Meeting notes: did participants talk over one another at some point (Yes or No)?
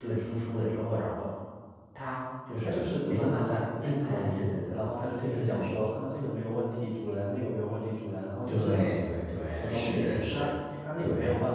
Yes